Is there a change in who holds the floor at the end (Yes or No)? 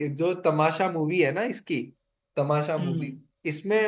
No